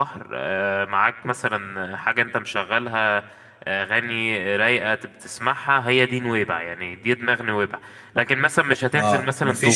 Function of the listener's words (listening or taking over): taking over